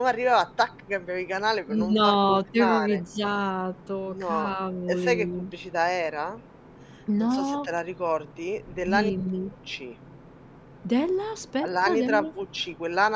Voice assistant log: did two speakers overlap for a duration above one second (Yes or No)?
Yes